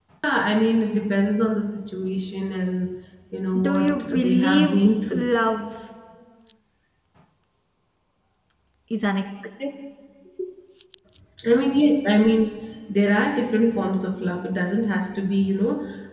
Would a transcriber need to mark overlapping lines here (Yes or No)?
Yes